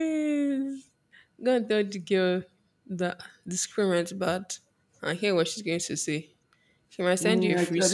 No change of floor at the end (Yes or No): No